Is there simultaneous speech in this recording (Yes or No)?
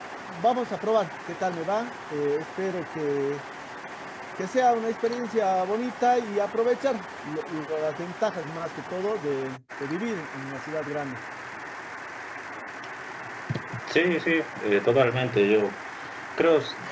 No